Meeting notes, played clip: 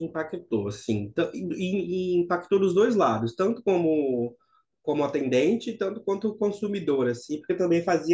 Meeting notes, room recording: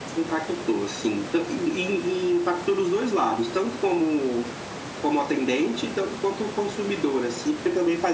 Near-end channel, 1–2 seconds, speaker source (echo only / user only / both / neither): echo only